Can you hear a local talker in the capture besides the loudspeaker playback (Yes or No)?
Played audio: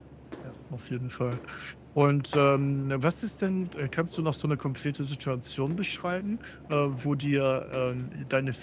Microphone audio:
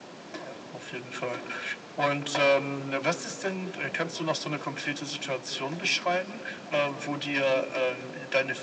No